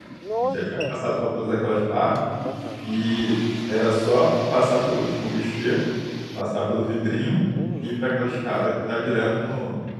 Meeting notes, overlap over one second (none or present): none